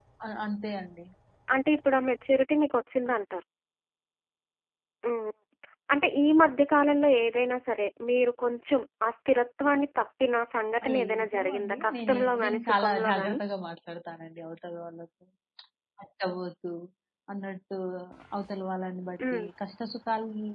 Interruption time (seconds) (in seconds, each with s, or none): 10.8 s